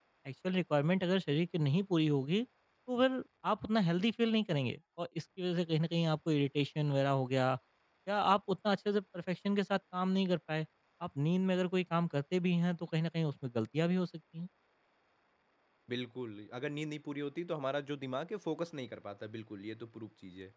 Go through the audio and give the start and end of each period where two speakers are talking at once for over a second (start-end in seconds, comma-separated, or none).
none